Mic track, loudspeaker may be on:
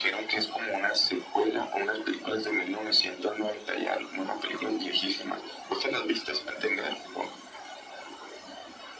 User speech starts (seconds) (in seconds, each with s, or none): none